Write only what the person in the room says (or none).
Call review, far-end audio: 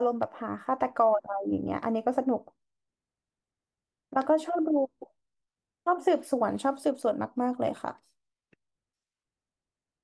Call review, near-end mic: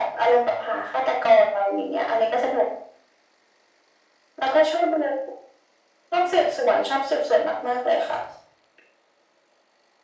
none